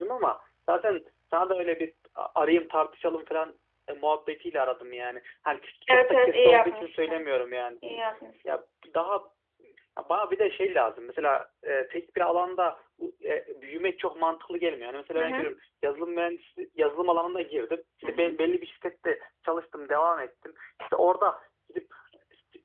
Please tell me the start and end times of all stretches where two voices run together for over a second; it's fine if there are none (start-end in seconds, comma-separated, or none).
5.9-7.3